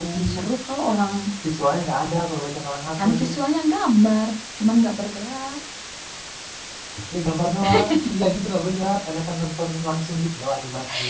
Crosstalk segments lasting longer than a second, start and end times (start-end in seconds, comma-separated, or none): none